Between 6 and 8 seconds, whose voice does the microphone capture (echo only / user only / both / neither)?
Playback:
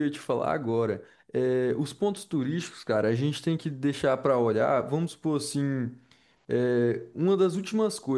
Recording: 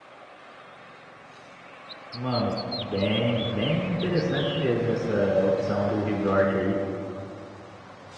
user only